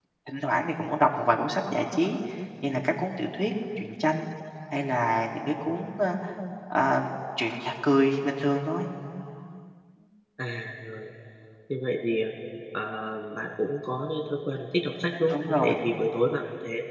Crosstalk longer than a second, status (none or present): none